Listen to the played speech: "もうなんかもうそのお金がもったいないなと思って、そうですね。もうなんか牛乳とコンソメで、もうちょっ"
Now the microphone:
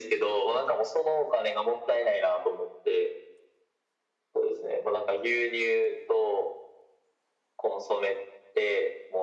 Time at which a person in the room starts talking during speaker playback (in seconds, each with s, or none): none